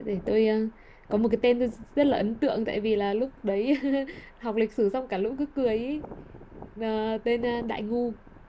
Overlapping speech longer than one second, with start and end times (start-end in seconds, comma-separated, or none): none